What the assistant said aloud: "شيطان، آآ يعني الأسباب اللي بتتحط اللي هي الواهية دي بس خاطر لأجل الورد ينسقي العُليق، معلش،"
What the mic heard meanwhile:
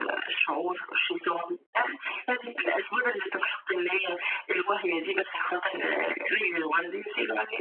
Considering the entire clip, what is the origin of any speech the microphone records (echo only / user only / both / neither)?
echo only